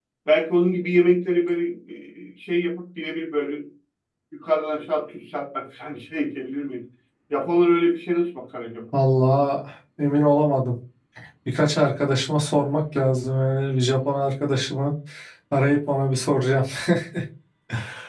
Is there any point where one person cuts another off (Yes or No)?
No